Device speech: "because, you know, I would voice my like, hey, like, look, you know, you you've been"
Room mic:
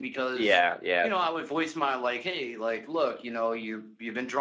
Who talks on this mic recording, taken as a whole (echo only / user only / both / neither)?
both